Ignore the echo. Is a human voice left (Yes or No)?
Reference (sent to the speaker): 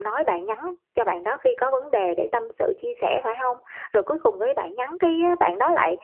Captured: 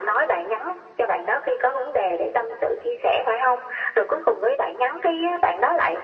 No